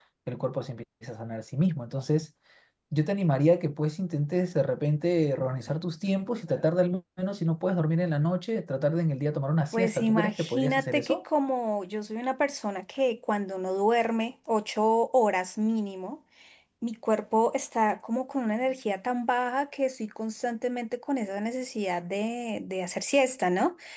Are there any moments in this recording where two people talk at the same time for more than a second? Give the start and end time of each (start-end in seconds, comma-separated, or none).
9.7-11.2